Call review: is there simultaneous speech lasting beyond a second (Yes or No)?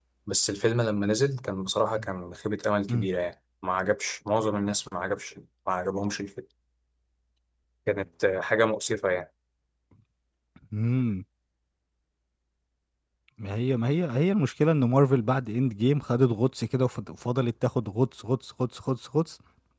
No